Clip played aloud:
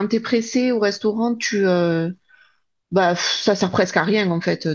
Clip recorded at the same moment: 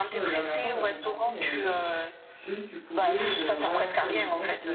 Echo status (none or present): present